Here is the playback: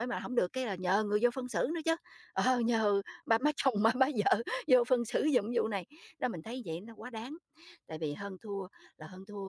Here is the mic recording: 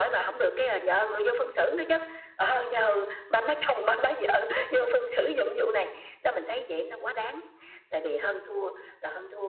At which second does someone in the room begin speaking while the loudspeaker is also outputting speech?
none

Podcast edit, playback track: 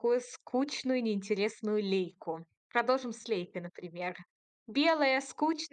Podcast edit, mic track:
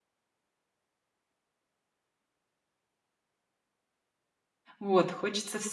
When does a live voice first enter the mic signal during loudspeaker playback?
4.8 s

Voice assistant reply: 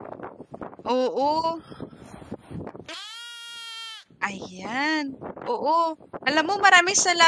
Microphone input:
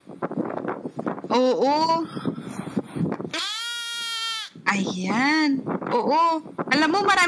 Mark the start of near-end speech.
none

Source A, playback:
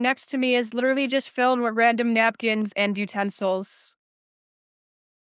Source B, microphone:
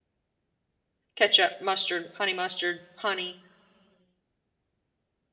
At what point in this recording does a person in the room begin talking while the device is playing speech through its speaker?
1.2 s

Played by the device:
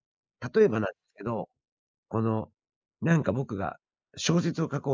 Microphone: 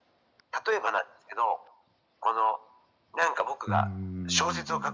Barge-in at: 3.7 s

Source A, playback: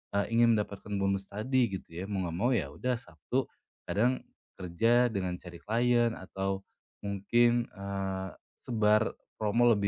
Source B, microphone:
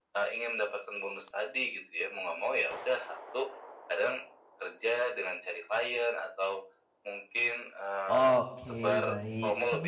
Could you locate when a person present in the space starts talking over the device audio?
8.1 s

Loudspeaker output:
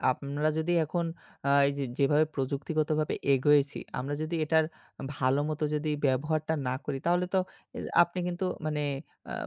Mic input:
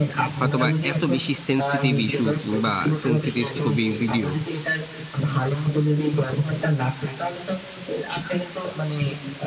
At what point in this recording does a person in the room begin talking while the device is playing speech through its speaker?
0.4 s

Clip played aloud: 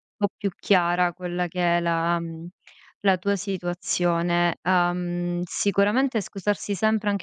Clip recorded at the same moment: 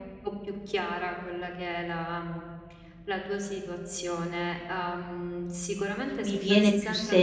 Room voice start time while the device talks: 6.2 s

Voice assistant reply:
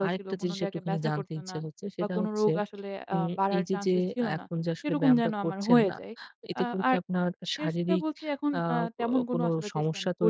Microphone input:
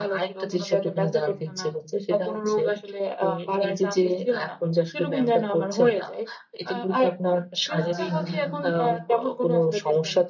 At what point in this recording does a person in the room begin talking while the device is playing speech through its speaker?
7.7 s

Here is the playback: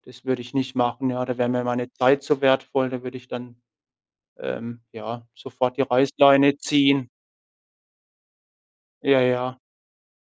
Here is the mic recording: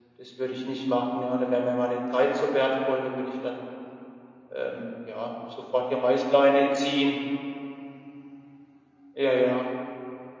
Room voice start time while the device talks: none

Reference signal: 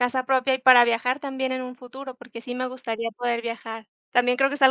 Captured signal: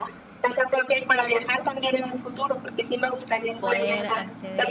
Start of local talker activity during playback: 3.6 s

